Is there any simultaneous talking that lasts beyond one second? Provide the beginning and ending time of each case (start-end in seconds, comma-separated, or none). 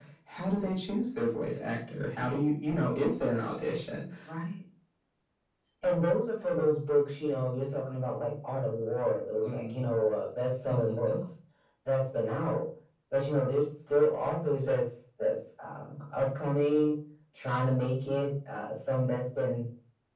none